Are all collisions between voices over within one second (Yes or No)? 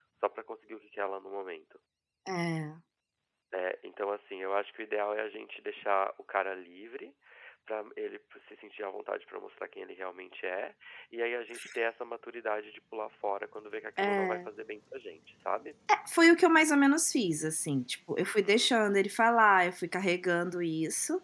Yes